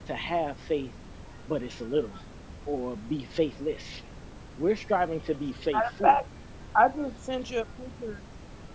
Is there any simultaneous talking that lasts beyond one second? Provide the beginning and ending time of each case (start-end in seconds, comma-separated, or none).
none